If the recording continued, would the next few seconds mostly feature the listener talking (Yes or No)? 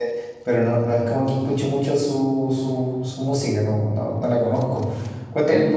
No